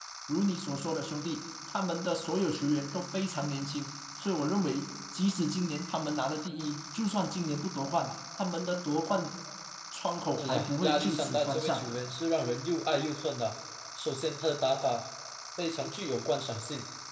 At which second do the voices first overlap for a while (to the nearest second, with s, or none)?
10 s